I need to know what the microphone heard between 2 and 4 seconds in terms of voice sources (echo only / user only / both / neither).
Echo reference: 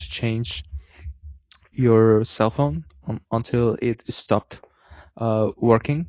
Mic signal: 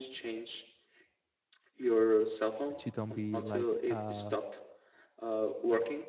both